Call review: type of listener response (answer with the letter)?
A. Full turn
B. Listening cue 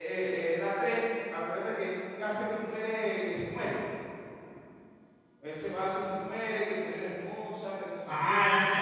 A